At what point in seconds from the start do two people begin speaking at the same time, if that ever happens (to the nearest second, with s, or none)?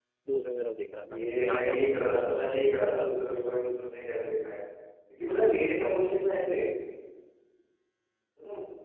1 s